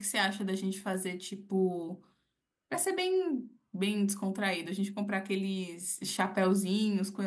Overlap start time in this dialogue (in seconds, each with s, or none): none